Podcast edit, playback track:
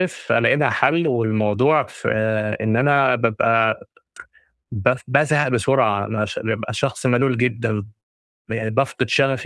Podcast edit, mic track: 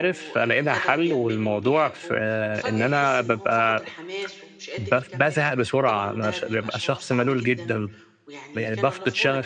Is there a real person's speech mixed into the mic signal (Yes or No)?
Yes